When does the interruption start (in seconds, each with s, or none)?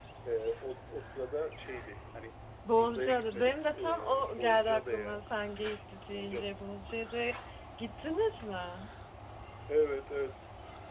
2.7 s